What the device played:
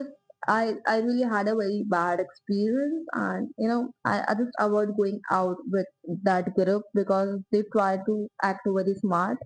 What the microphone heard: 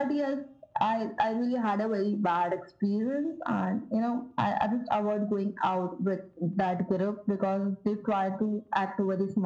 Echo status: present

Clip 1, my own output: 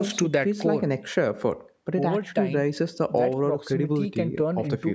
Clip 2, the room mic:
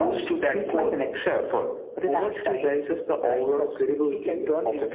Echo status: present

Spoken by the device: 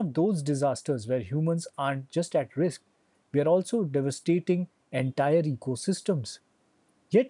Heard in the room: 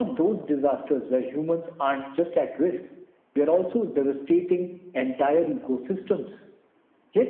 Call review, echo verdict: present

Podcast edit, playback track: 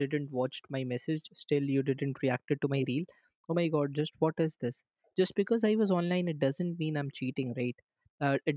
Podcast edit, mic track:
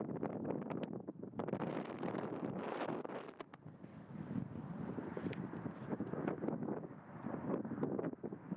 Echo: none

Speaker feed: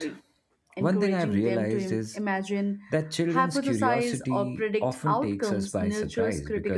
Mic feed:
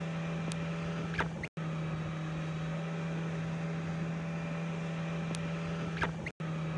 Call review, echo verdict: none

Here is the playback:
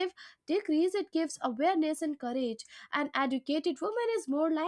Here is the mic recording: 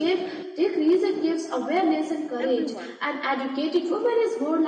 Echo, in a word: present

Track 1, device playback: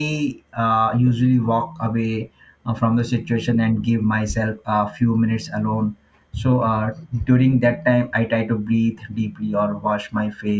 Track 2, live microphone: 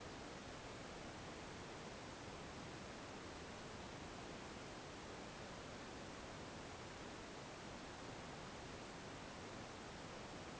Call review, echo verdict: none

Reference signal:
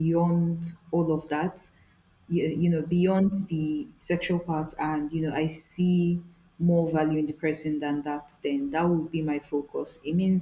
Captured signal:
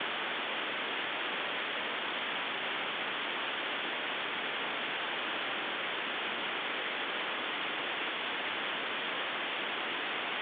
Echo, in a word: none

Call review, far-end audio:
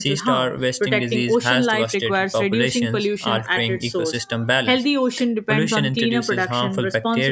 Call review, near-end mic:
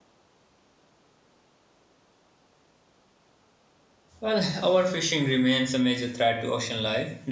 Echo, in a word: none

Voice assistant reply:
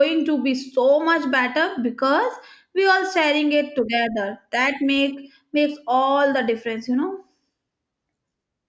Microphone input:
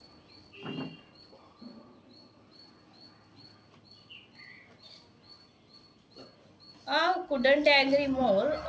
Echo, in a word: none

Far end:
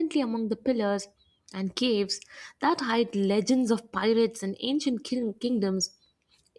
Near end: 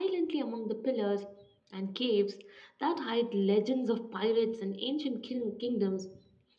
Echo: present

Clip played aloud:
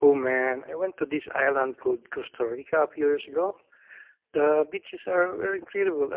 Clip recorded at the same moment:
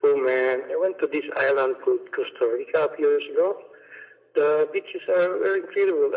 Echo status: present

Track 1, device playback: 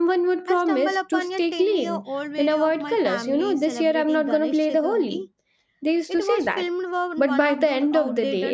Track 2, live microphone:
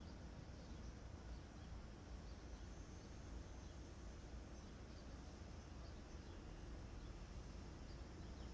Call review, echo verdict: none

